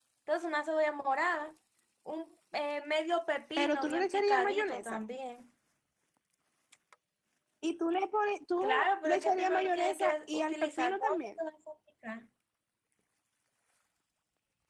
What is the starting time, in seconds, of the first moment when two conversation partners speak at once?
4 s

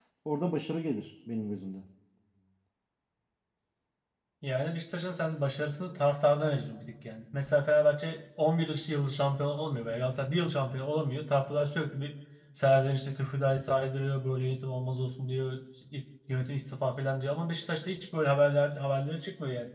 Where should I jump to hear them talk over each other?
none

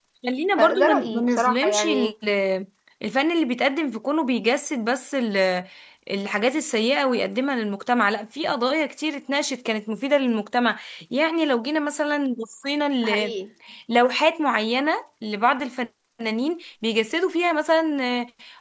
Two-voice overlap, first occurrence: 1 s

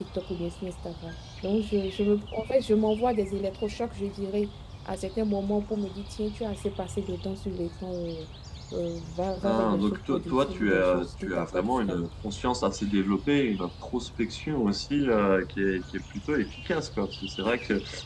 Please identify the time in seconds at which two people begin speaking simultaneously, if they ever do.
9 s

